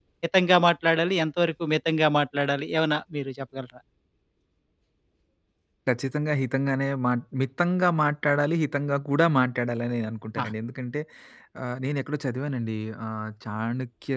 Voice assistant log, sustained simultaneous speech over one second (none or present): none